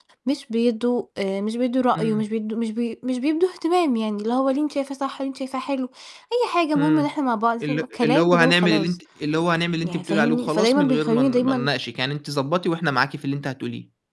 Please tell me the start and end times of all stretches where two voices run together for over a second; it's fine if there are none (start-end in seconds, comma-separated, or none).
7.6-9.0, 9.8-11.7